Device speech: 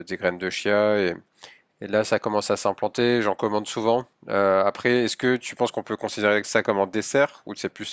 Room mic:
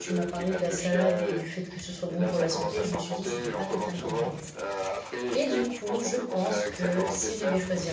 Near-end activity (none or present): present